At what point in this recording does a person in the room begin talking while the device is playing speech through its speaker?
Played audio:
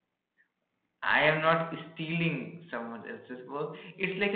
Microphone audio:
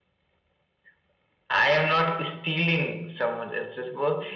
none

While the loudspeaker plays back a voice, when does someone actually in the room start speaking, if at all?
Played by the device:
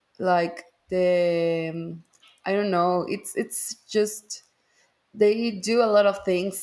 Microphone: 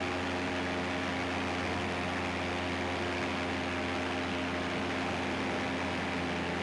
none

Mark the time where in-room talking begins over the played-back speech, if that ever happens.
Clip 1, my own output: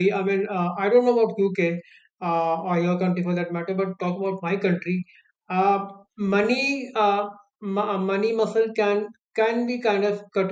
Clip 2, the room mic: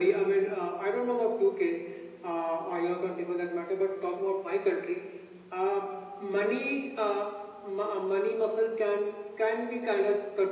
none

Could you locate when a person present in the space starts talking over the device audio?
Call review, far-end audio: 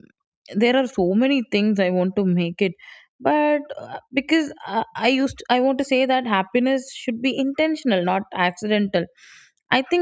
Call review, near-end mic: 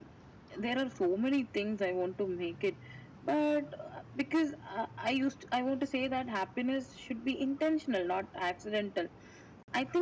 none

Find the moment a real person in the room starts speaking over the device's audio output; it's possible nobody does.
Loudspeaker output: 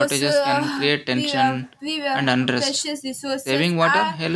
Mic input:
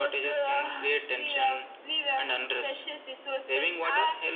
none

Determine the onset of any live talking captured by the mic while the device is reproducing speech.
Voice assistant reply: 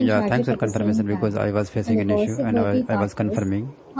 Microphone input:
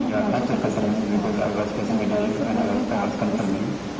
none

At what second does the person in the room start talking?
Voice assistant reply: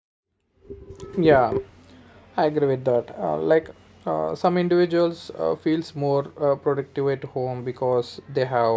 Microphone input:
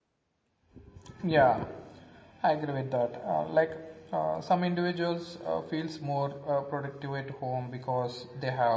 none

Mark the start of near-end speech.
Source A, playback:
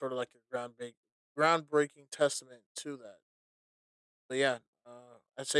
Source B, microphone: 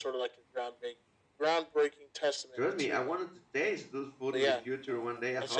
2.5 s

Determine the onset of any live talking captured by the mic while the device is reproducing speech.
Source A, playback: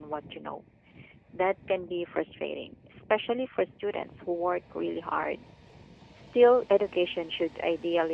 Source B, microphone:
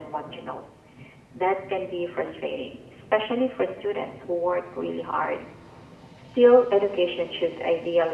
none

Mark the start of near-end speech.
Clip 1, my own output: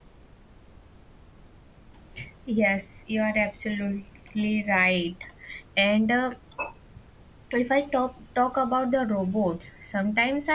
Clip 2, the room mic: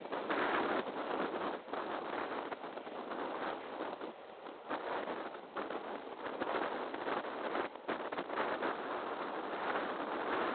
none

